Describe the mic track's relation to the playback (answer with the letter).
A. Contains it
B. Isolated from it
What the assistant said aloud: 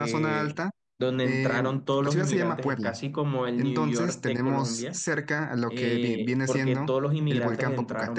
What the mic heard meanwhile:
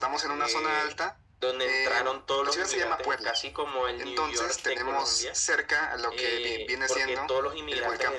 A